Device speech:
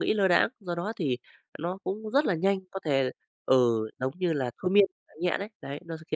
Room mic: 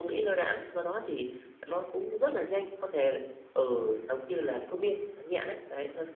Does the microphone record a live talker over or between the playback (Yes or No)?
No